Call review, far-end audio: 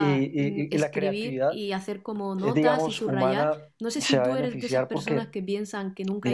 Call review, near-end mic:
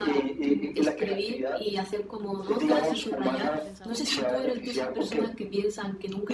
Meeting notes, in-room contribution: present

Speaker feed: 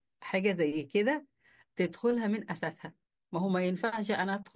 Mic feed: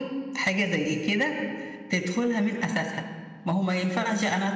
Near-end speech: none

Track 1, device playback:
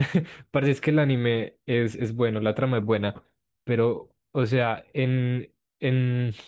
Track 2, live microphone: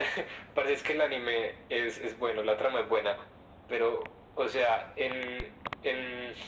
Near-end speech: none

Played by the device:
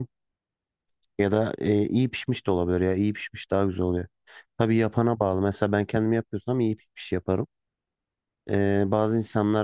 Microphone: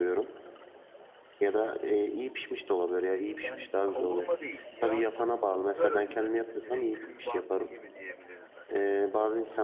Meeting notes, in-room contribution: present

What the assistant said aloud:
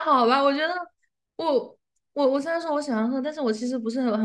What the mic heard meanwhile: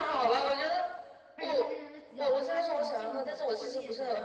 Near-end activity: present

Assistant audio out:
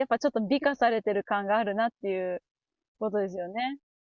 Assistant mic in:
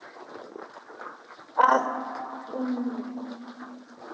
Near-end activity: present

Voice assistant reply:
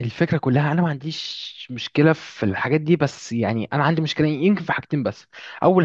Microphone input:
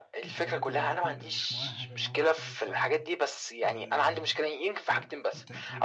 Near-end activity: present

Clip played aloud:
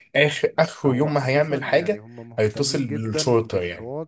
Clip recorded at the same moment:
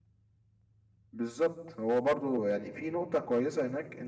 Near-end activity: present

